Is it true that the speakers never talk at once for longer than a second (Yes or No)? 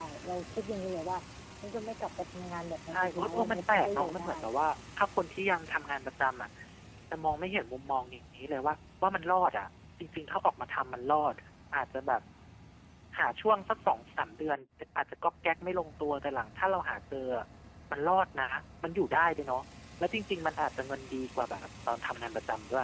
No